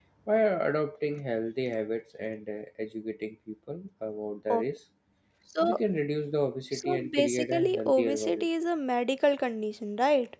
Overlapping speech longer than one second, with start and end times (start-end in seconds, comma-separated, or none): 6.7-8.5